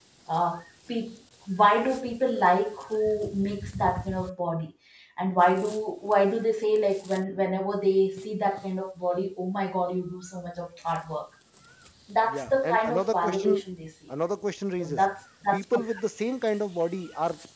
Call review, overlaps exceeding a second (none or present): present